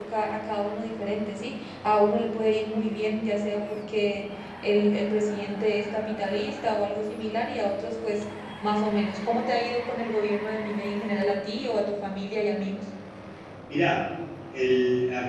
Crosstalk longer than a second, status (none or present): none